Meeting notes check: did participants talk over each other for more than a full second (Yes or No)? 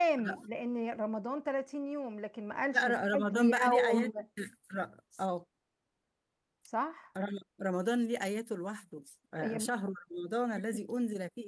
Yes